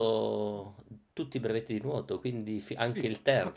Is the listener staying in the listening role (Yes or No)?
No